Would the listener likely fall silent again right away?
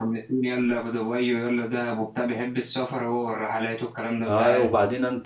No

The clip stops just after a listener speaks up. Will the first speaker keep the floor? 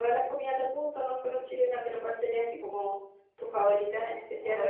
No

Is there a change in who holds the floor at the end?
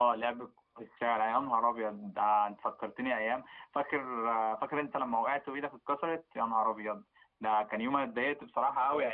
No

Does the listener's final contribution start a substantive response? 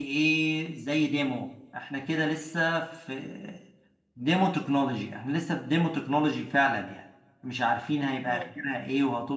No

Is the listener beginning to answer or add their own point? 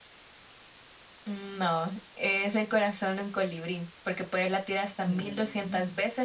No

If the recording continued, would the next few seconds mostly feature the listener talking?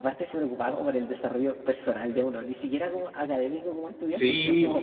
Yes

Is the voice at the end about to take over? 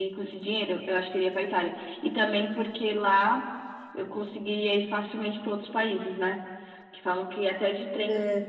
No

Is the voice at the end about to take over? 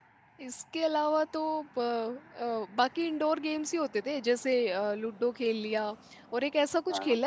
No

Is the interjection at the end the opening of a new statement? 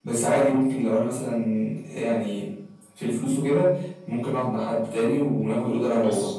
No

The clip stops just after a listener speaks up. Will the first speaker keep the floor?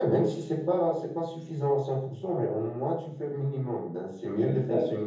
Yes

